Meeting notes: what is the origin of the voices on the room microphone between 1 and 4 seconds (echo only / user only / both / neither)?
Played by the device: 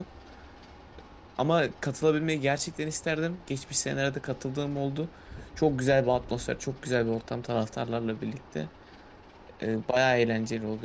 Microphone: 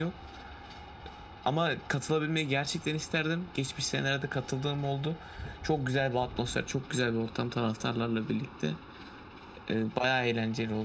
echo only